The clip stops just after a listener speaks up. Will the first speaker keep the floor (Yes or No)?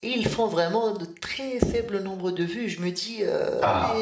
Yes